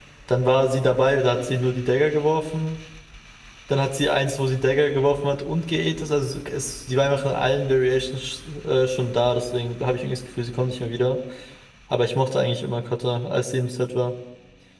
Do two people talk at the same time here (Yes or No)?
No